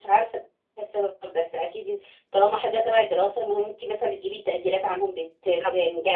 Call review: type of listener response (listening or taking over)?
taking over